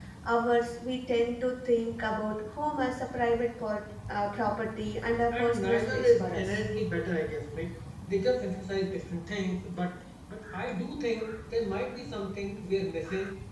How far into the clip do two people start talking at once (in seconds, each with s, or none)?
5.3 s